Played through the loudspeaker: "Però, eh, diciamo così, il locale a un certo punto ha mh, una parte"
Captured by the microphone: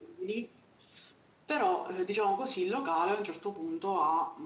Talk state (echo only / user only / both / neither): echo only